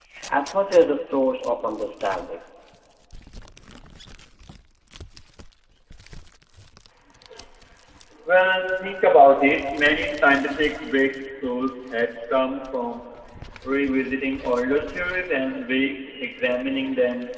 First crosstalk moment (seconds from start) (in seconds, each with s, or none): none